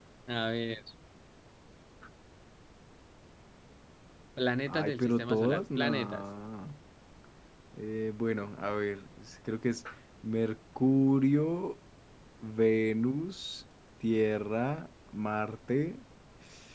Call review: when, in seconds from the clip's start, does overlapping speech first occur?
4.7 s

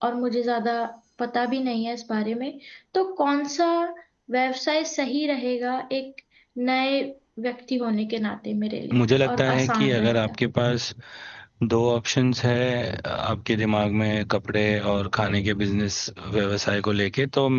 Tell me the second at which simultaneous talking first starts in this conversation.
8.9 s

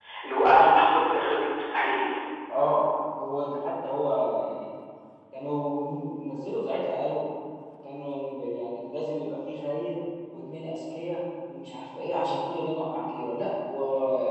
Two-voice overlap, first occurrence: none

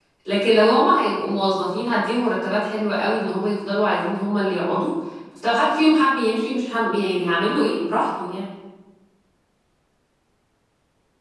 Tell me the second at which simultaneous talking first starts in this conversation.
none

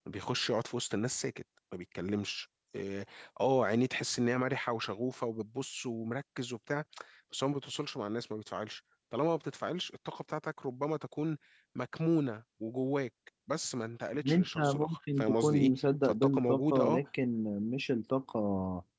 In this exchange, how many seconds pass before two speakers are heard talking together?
14.1 s

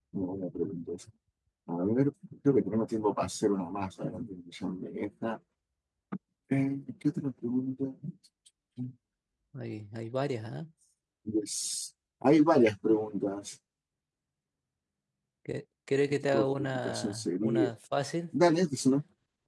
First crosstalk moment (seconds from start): 16.3 s

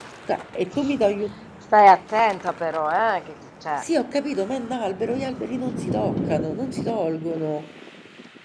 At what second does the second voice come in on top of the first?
none

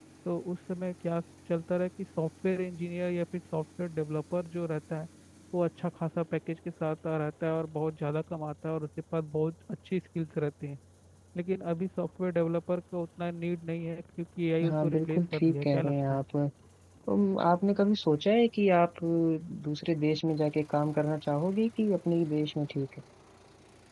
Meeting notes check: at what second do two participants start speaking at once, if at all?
14.6 s

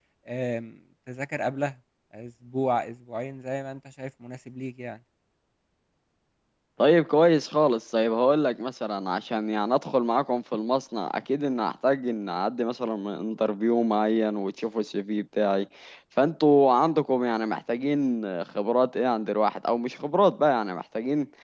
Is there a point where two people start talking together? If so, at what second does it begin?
none

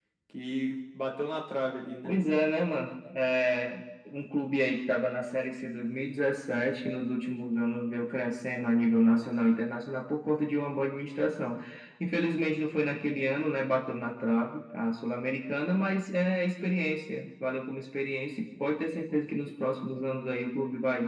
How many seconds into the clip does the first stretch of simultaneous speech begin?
none

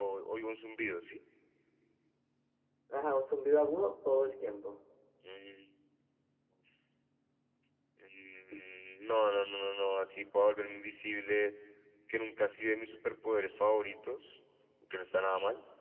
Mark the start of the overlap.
none

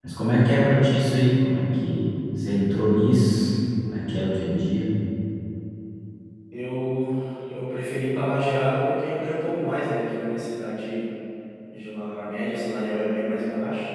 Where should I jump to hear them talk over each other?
none

